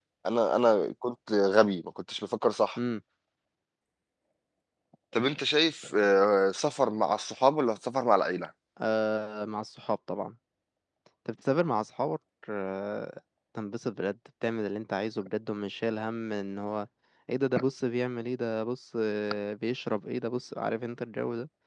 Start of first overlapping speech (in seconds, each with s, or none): none